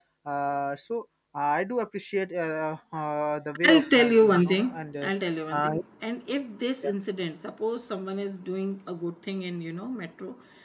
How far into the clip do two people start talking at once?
3.7 s

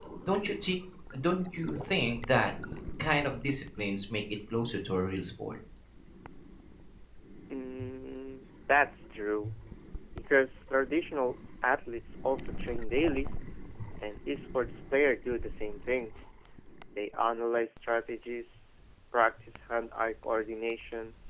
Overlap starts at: none

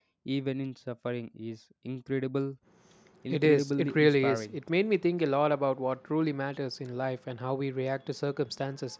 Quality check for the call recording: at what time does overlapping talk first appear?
3.3 s

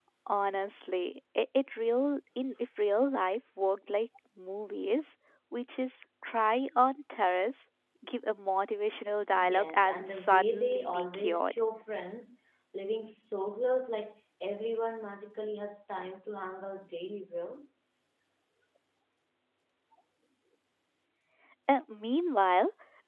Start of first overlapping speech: 9.3 s

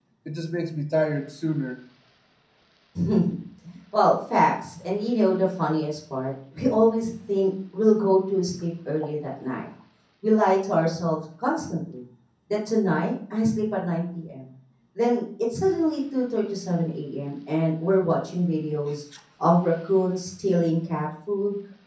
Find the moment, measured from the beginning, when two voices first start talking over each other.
none

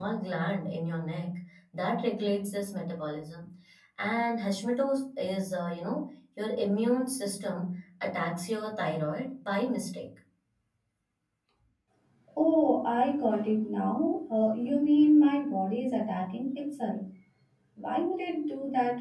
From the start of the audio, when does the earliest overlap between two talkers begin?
none

